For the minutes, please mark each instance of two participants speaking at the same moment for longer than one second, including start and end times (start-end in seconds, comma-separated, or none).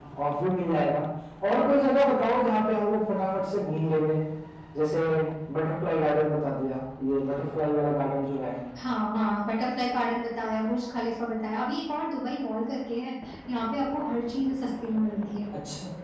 none